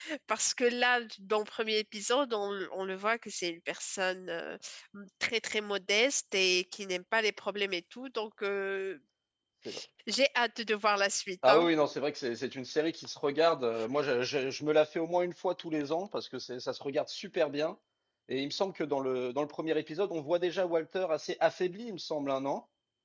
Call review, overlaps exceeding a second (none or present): none